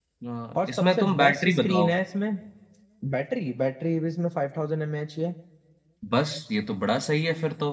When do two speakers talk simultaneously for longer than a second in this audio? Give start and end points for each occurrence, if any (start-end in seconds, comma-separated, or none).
0.7-2.0